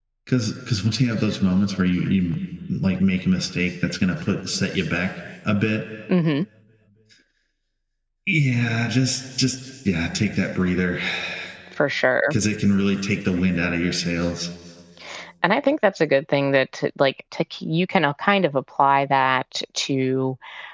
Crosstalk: none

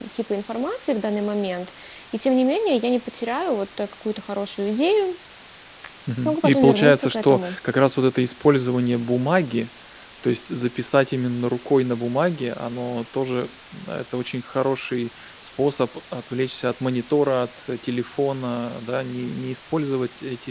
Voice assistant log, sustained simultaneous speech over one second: present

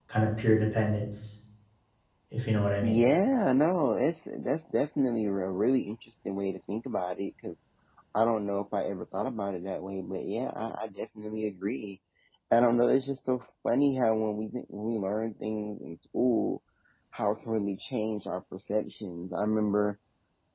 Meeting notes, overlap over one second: none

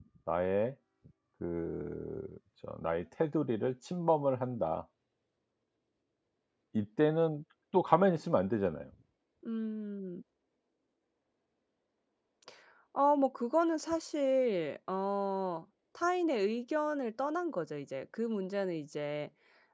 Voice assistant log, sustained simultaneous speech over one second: none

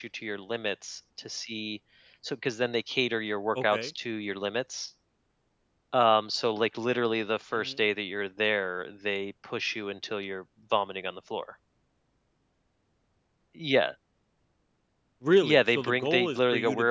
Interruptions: present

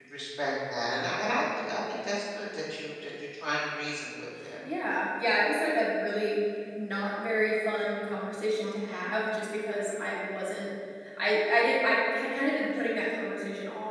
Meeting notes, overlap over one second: none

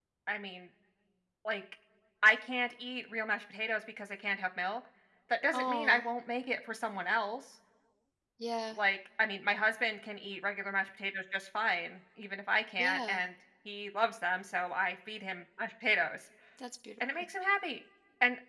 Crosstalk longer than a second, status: none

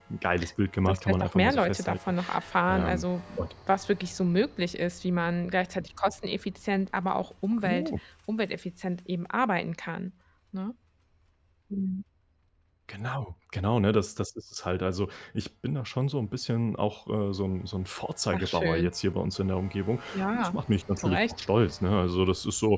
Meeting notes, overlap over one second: present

